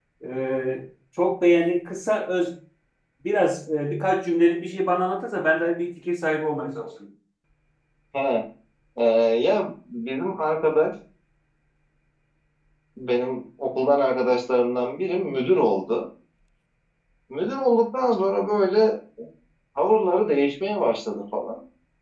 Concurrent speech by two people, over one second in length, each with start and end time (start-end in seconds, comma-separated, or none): none